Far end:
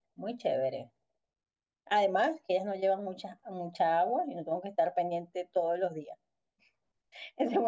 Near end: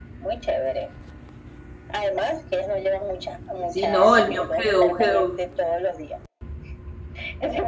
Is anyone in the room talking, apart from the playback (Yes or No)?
Yes